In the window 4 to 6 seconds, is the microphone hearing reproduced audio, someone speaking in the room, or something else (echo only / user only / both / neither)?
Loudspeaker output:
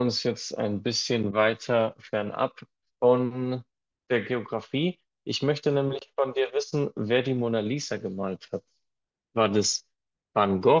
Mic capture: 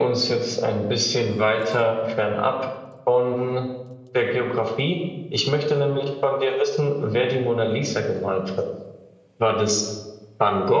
echo only